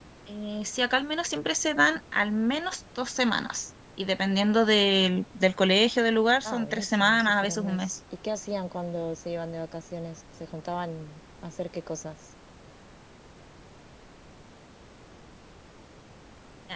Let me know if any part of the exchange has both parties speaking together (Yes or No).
Yes